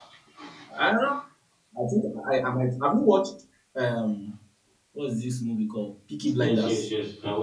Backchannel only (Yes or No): No